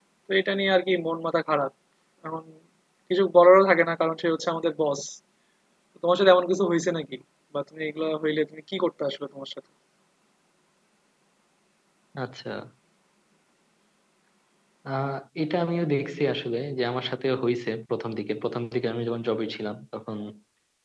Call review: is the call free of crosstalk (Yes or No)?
Yes